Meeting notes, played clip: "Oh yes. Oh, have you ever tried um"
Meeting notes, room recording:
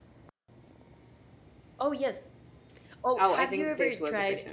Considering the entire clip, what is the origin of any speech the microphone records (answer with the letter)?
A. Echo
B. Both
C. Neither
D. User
B